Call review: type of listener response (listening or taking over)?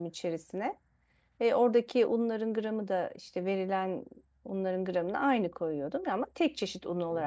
taking over